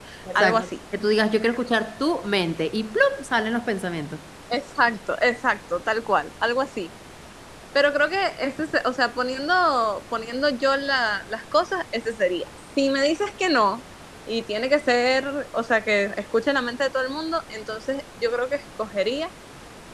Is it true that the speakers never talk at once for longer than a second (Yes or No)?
Yes